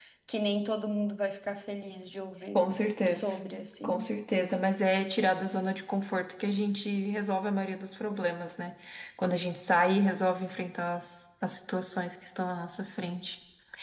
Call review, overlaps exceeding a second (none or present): none